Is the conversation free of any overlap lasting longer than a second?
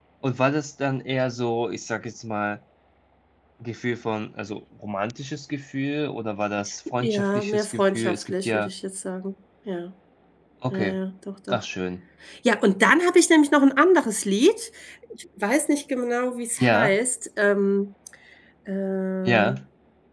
No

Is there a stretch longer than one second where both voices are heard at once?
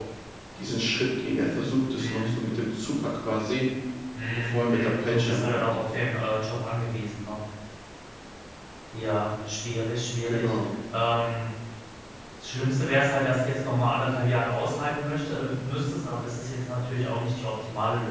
Yes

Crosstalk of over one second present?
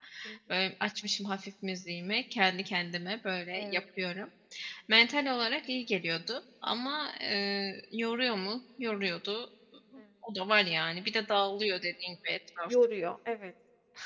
No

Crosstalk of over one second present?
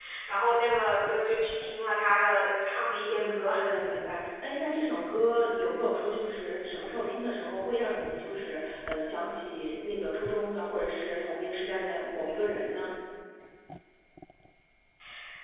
No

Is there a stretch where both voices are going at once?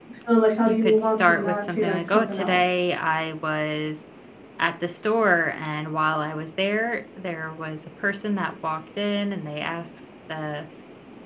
Yes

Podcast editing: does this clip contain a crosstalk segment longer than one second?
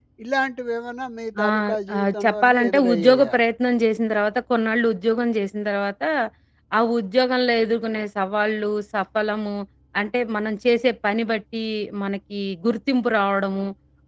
Yes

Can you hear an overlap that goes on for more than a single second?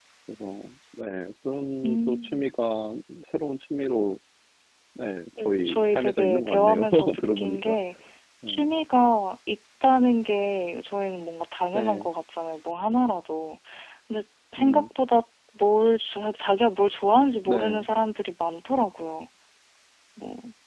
Yes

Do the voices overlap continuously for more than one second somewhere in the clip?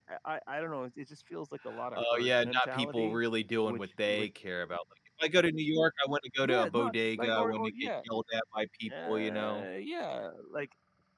Yes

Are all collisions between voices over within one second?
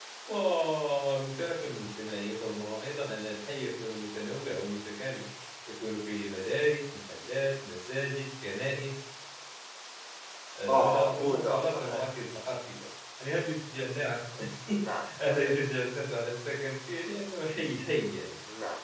No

